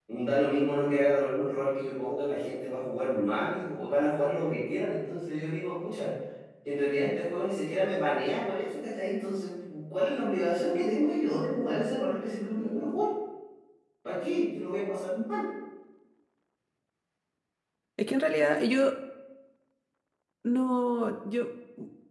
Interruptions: none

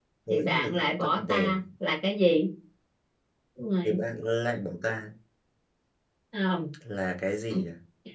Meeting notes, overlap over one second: present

